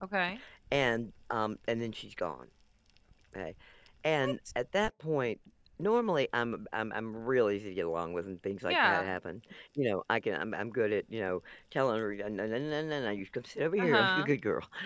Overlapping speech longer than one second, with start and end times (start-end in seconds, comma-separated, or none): none